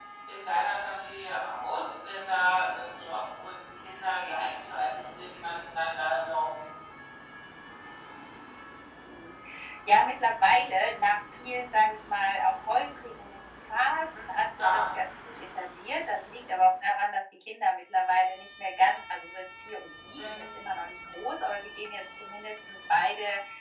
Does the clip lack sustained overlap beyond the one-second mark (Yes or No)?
Yes